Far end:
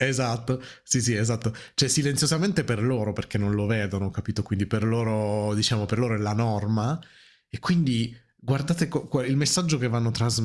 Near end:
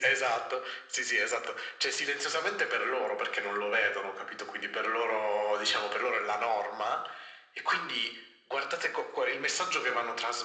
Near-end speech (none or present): none